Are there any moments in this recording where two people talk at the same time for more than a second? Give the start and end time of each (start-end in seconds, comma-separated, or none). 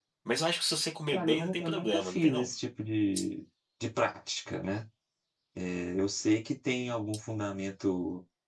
1.1-2.5